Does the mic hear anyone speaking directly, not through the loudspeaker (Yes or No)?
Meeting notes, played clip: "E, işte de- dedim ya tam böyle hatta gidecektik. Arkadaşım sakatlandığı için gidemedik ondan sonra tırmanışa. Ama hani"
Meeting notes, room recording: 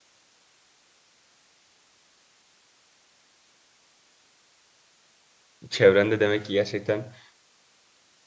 Yes